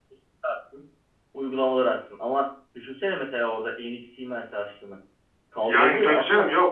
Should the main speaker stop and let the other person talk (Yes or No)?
Yes